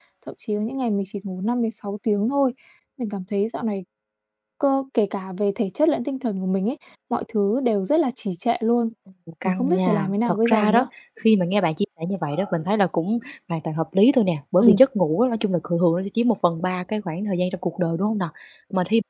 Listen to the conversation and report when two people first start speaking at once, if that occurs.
9.4 s

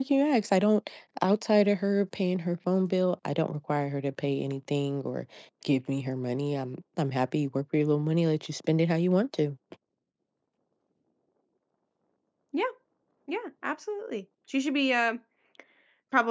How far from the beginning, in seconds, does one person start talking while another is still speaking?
none

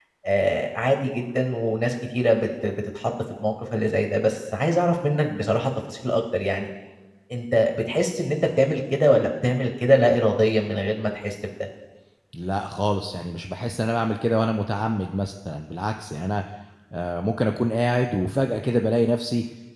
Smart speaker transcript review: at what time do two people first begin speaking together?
none

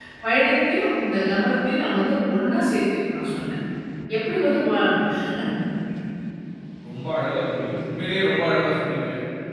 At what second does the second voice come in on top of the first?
none

